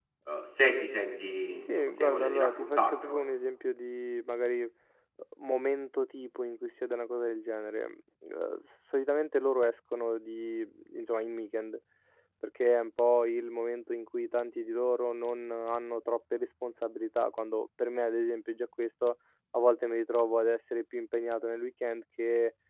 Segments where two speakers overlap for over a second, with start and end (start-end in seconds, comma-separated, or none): 1.6-3.2